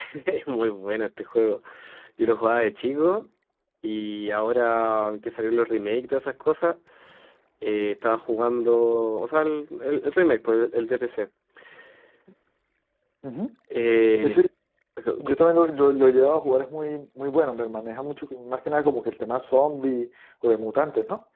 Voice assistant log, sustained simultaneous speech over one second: none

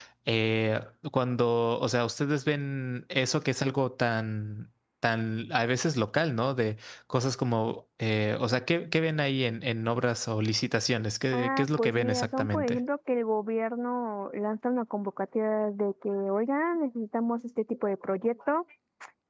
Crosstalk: present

